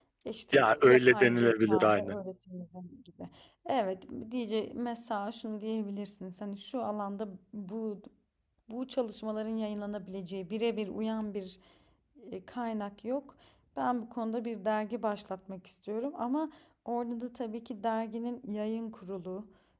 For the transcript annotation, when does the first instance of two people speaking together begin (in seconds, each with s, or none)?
0.5 s